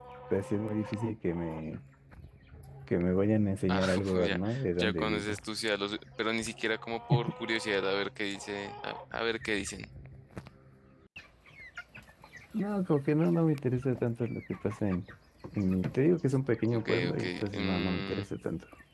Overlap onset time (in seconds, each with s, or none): 3.7 s